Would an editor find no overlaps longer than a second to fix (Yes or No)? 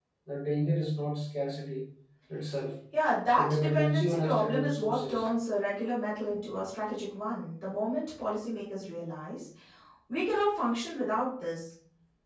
No